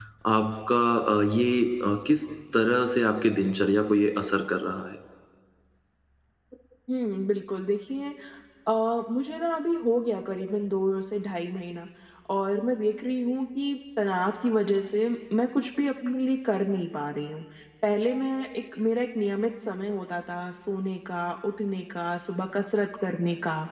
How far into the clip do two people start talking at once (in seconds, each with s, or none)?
none